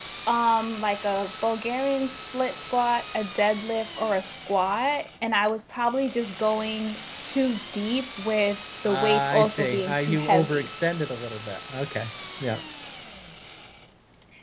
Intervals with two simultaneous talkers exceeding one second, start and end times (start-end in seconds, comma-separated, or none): 8.8-10.7